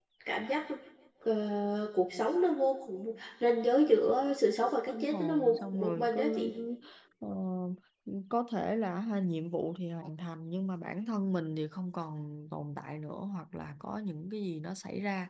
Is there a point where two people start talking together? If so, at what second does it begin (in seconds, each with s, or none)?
4.9 s